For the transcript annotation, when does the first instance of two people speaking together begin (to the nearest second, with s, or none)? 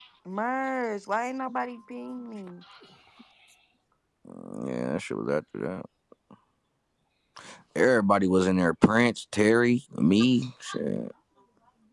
none